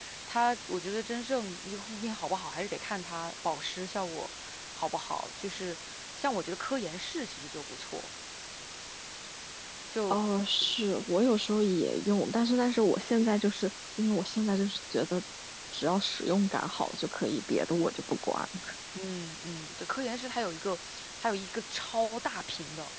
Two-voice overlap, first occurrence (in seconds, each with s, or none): none